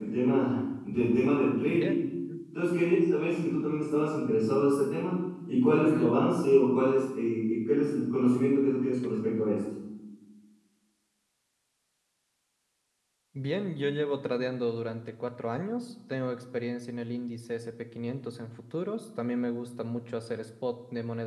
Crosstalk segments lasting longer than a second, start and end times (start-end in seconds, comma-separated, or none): none